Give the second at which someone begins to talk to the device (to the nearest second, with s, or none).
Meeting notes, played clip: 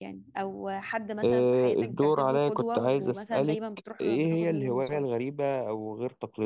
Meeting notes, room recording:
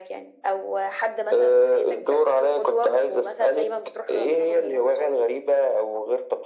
none